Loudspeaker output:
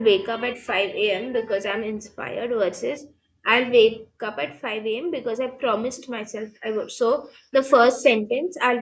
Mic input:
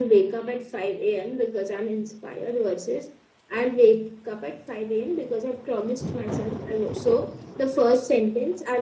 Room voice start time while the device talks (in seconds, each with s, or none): none